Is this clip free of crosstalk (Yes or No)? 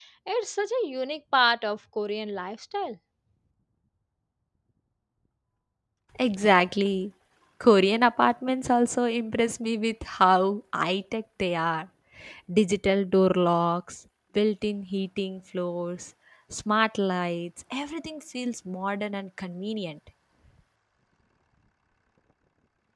Yes